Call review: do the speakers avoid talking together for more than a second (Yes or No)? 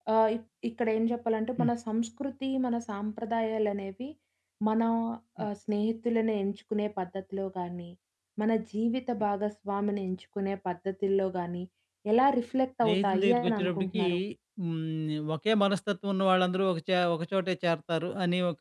No